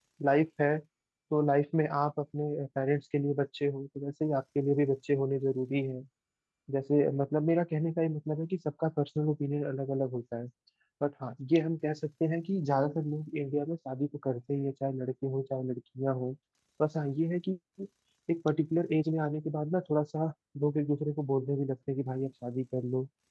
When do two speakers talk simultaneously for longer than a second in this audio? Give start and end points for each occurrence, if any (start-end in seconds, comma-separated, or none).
none